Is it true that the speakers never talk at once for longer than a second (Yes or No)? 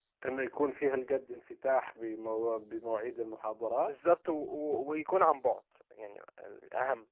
Yes